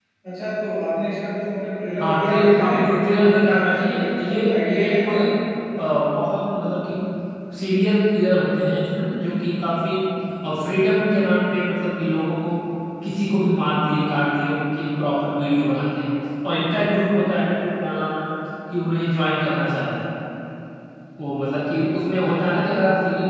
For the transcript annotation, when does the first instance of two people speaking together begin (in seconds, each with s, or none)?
2.0 s